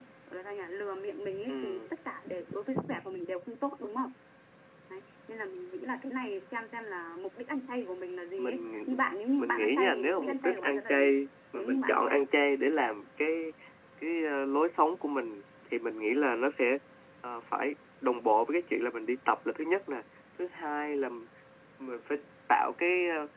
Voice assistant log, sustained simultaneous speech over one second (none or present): present